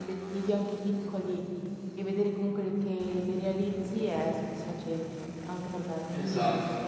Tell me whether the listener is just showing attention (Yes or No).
No